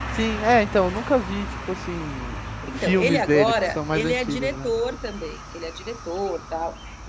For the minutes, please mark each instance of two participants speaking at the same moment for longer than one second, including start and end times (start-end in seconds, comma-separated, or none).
2.7-4.7